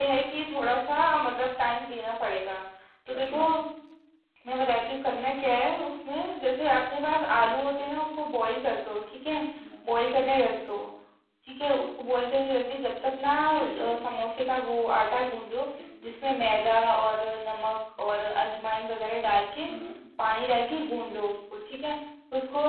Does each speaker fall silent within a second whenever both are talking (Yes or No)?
Yes